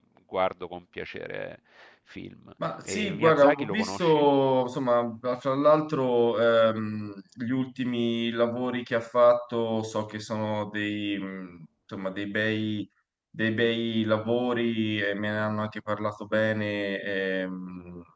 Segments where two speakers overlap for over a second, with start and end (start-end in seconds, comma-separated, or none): 2.8-4.3